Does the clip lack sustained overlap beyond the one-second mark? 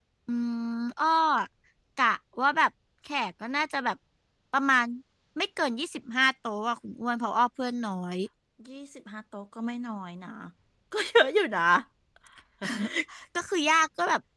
Yes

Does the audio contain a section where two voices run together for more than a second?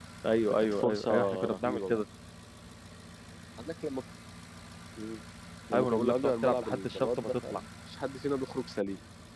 Yes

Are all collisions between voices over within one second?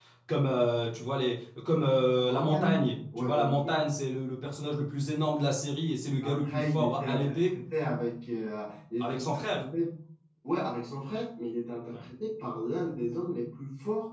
No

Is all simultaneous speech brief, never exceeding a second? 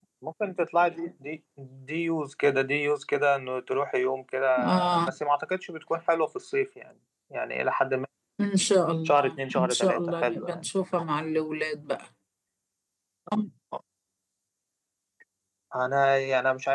No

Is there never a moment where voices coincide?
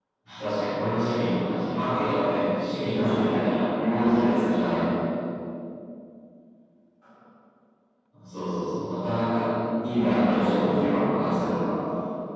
No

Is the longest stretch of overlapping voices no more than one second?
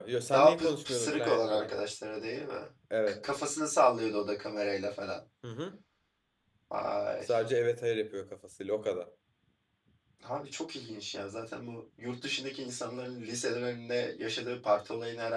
No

